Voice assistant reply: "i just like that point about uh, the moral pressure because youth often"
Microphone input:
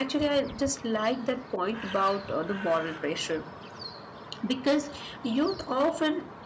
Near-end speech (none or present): none